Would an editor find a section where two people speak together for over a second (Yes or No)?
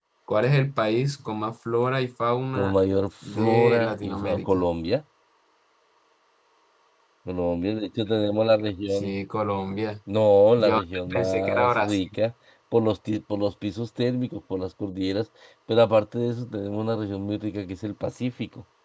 Yes